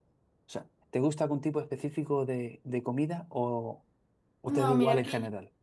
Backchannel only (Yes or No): No